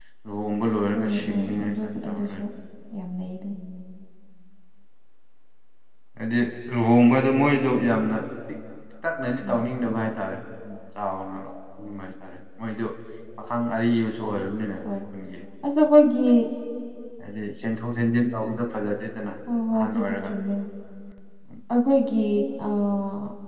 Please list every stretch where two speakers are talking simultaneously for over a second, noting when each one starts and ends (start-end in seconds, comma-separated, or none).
0.9-2.4